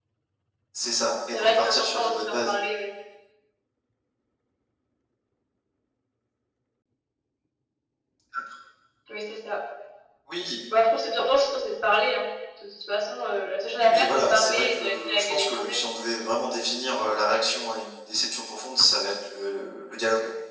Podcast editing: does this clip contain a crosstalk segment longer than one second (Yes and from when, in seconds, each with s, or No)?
Yes, from 1.3 s